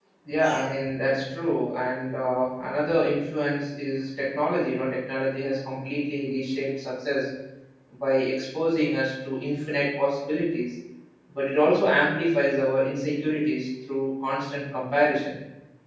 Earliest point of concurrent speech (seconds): none

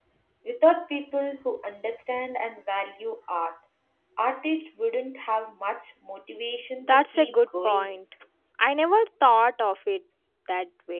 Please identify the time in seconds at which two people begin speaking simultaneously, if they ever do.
6.8 s

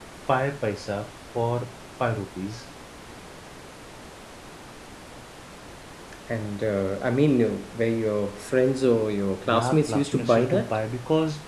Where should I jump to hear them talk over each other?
9.4 s

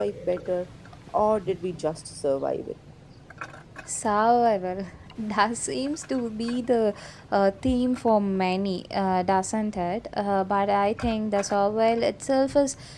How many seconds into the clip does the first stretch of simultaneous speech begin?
none

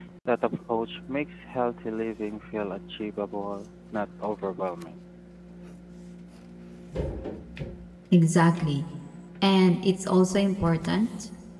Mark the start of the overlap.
none

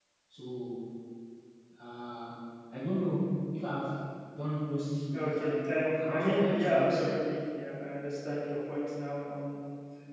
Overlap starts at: 5.1 s

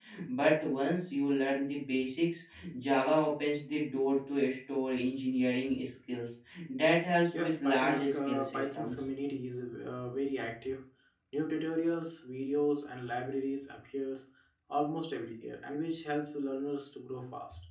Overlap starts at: 7.3 s

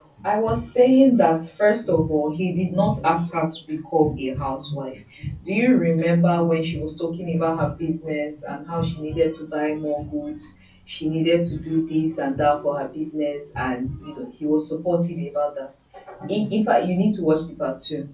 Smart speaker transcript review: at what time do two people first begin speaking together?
none

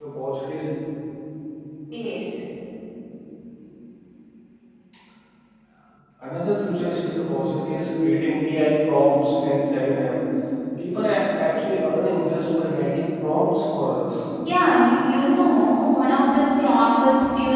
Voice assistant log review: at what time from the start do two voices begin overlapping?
none

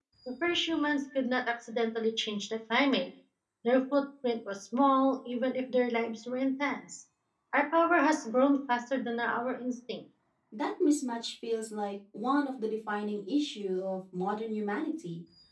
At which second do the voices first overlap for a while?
none

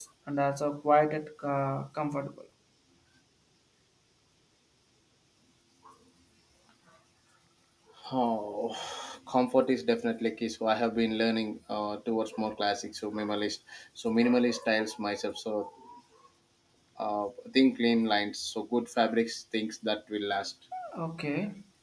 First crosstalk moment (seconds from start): none

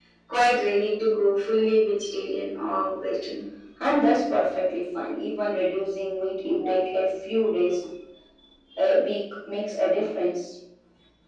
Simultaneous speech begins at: none

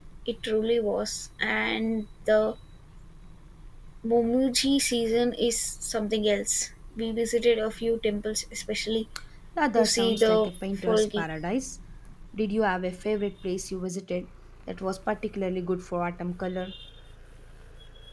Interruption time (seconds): 9.8 s

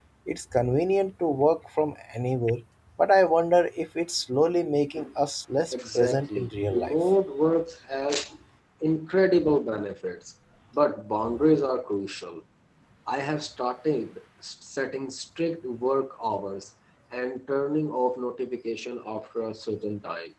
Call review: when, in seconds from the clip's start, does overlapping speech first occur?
5.7 s

